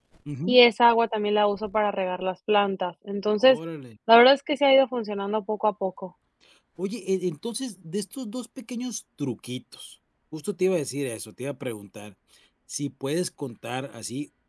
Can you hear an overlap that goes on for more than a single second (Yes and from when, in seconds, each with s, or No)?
No